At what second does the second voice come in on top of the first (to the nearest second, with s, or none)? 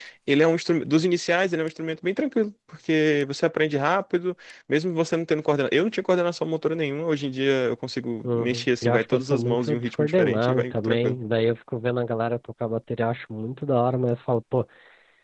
8 s